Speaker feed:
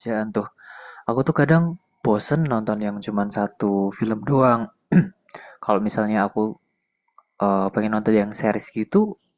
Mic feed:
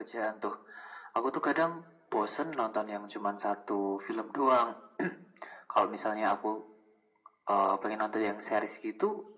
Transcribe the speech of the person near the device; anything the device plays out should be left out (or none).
none